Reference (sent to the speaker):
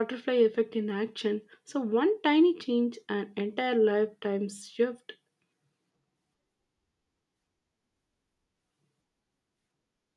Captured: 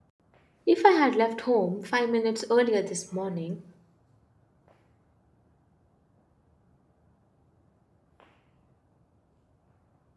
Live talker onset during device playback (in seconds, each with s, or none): 0.7 s